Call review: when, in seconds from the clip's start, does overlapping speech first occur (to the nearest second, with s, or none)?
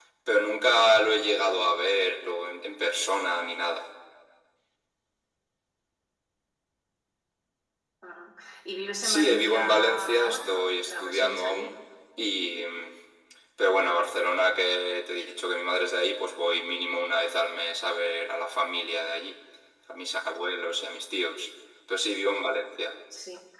9 s